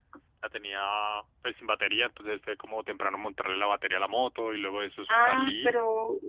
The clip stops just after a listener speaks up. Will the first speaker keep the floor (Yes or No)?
No